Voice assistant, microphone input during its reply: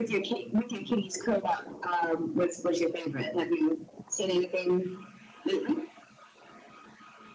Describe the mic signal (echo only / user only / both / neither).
echo only